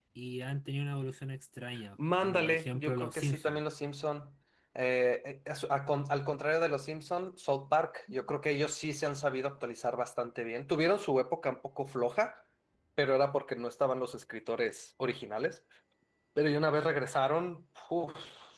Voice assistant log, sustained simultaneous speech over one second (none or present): present